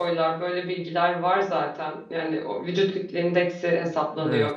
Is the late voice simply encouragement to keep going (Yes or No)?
Yes